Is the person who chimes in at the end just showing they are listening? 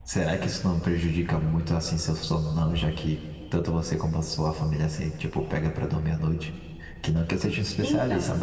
Yes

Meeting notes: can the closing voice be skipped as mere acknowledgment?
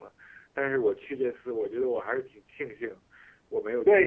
No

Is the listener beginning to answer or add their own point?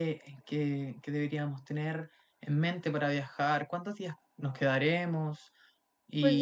Yes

